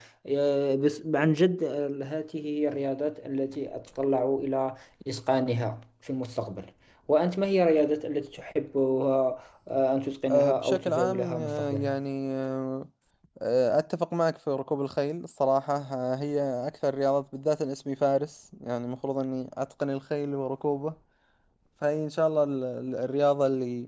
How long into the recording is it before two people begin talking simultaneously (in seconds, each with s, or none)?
10.3 s